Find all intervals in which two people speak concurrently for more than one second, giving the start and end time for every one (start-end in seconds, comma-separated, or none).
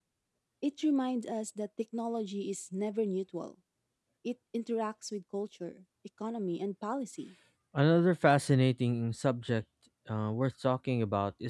none